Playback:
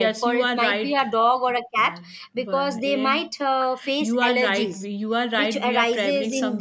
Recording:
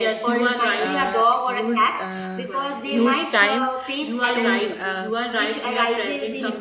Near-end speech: present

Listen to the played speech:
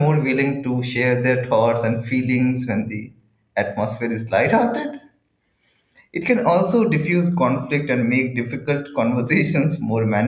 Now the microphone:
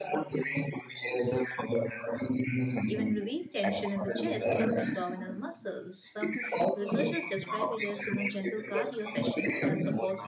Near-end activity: present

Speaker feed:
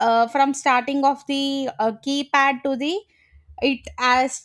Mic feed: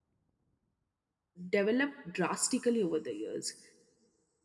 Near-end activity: present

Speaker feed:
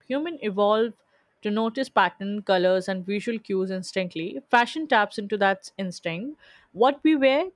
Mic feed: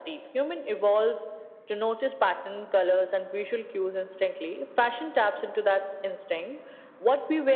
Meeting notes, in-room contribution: none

